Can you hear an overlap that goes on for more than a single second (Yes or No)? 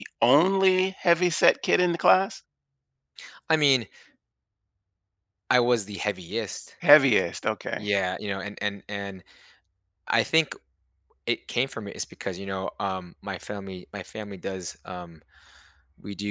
No